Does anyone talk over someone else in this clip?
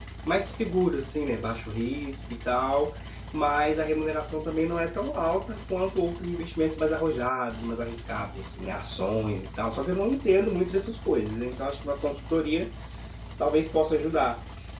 No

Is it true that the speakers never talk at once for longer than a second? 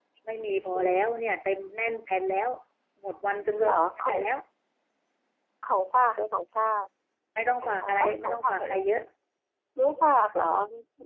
No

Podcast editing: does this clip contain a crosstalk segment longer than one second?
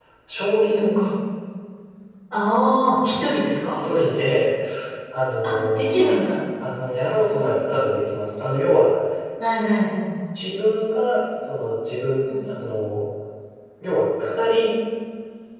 No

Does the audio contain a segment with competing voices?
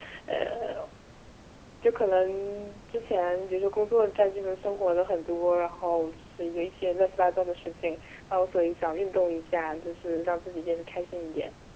No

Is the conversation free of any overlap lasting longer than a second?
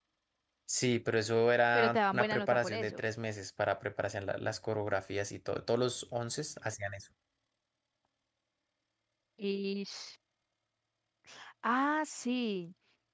No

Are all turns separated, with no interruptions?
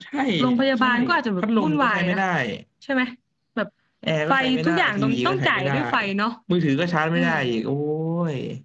No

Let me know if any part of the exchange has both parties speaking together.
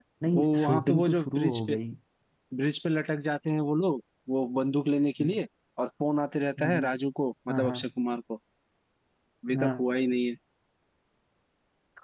Yes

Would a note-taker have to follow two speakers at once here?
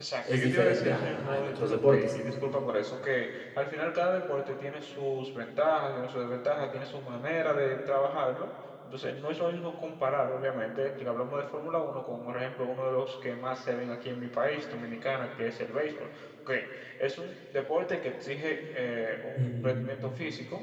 Yes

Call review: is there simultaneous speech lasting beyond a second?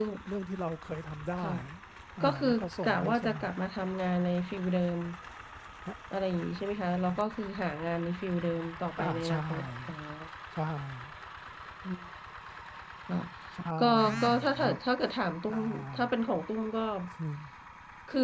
Yes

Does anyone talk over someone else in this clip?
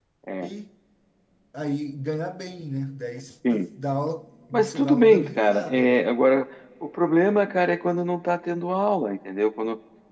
Yes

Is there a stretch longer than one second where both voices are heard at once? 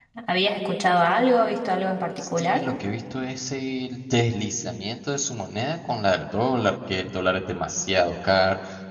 No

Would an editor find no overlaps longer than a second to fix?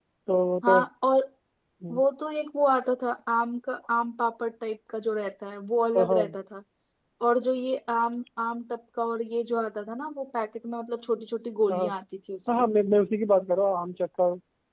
Yes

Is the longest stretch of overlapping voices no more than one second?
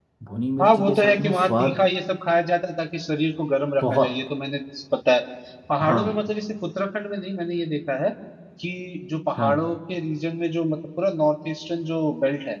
No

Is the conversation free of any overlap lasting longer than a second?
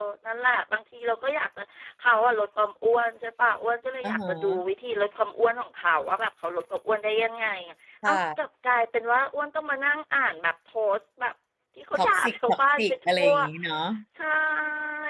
No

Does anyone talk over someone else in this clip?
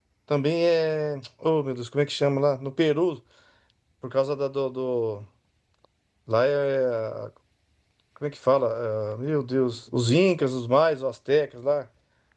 No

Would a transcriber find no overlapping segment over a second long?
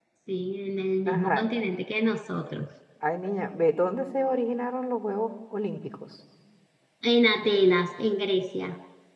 Yes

